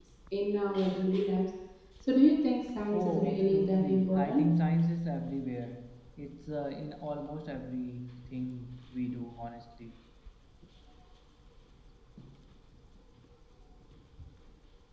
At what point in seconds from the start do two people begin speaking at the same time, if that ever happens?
3 s

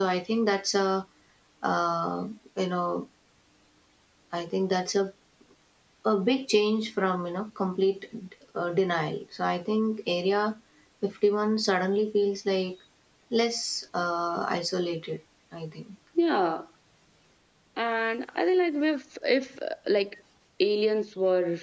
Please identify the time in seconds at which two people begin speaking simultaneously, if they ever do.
none

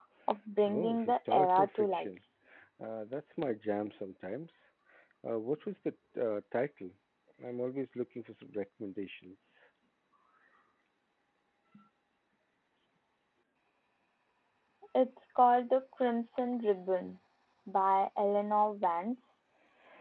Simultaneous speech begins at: 1 s

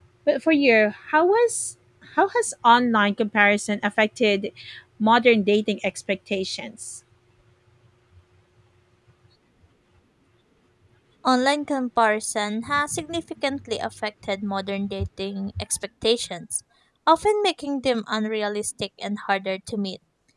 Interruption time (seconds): none

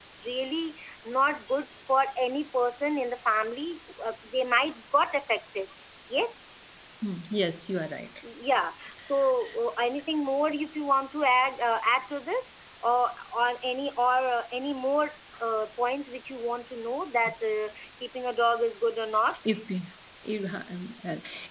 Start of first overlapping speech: none

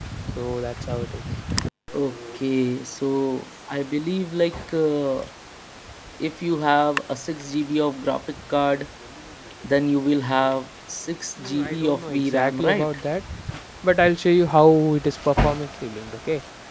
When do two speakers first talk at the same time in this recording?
11 s

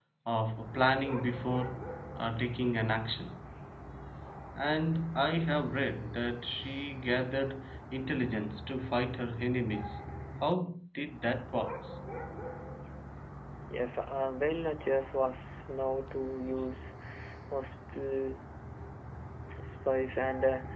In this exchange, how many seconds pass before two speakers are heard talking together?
none

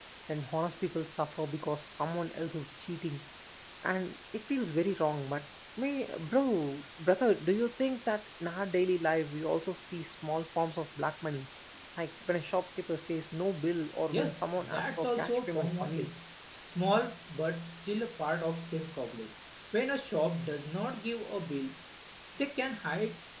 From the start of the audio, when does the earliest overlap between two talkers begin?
14 s

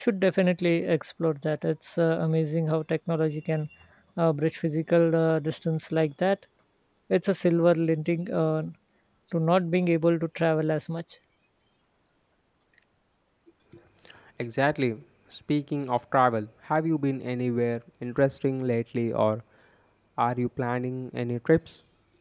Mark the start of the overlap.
none

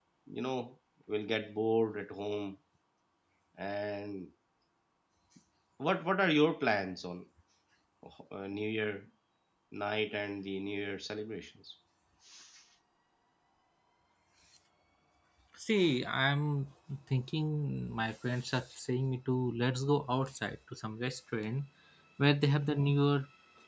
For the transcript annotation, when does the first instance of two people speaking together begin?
none

